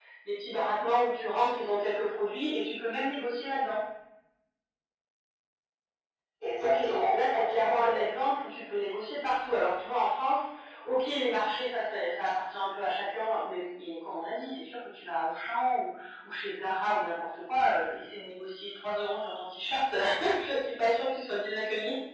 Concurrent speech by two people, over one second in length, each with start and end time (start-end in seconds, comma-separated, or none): 6.6-8.1